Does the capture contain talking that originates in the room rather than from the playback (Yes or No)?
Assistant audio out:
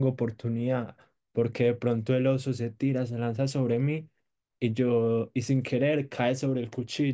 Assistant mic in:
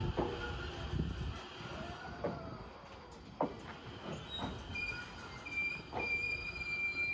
No